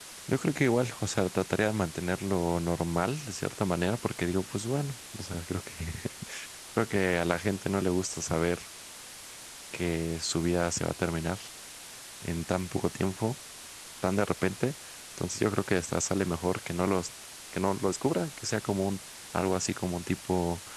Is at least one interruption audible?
No

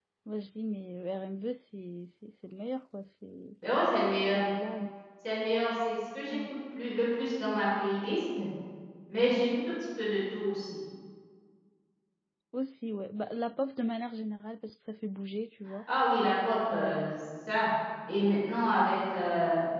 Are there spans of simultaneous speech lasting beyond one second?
No

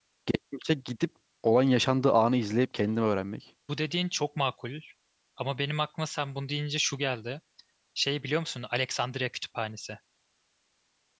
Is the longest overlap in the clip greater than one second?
No

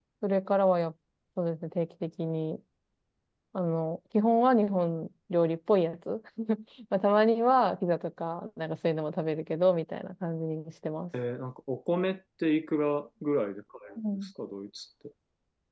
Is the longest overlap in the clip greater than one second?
No

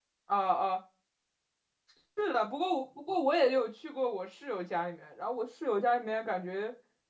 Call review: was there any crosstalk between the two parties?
No

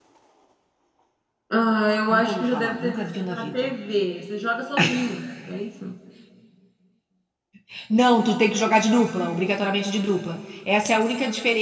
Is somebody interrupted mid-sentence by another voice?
Yes, from 2.1 s

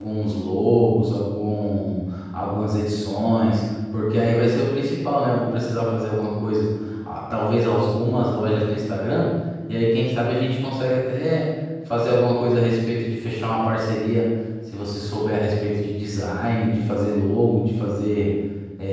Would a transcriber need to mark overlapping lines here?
No

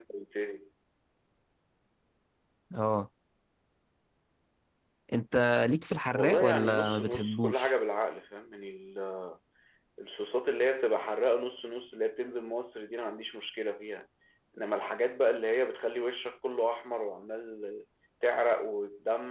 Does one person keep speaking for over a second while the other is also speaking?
Yes, from 6.2 s

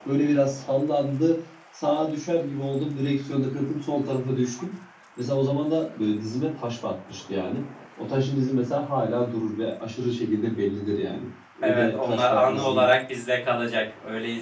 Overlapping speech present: Yes, from 11.6 s

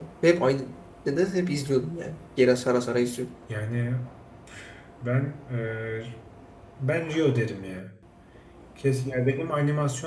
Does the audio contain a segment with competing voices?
No

